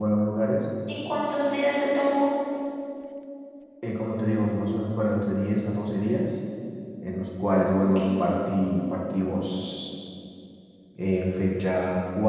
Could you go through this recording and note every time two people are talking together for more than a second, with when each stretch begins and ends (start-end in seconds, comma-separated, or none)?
none